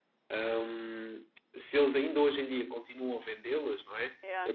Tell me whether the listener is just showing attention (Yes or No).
Yes